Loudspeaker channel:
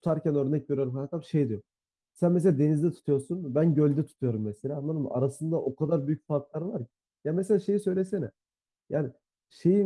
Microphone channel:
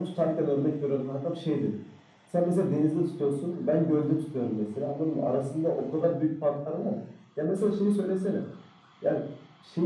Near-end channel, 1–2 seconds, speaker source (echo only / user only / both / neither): echo only